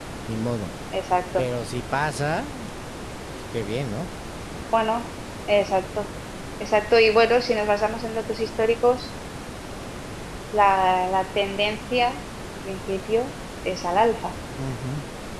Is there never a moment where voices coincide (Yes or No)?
Yes